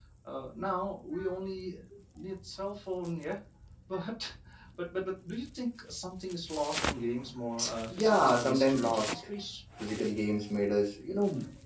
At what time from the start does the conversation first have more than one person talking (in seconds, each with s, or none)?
7.9 s